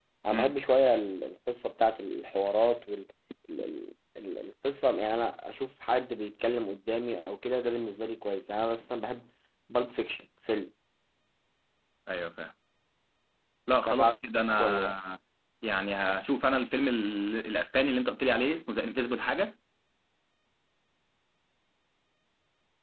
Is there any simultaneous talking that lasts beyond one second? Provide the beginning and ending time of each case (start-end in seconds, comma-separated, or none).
none